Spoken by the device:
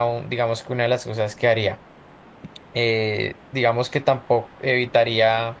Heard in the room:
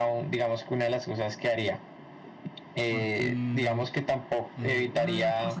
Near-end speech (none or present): present